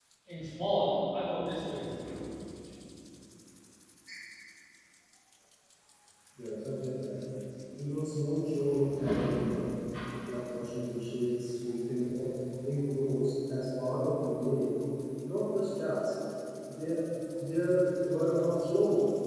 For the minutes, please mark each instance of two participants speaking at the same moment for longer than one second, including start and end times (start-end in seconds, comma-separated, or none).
none